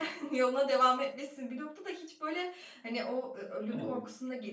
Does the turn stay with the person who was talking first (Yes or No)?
Yes